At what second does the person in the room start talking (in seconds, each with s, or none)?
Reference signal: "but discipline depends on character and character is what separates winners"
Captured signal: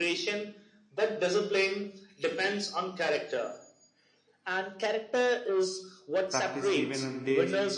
6.3 s